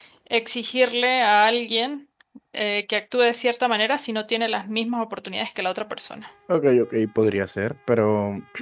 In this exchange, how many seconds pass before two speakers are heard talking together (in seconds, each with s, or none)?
none